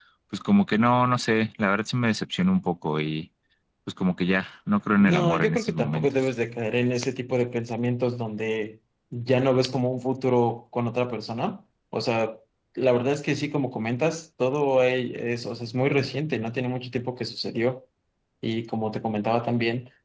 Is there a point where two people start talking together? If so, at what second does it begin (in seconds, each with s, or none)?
5.0 s